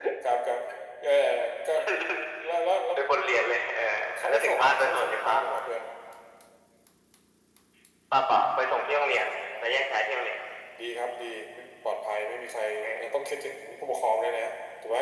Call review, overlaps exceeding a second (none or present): present